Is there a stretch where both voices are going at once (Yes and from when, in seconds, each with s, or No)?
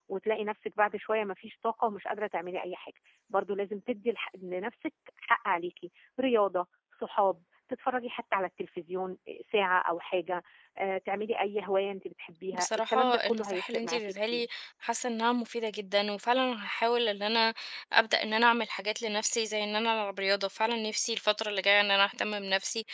Yes, from 12.5 s